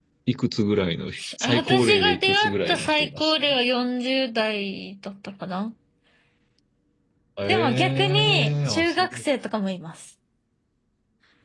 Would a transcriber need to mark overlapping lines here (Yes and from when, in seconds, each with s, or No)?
Yes, from 1.4 s